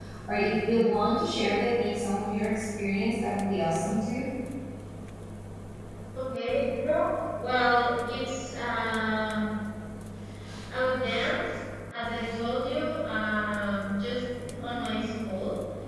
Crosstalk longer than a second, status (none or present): none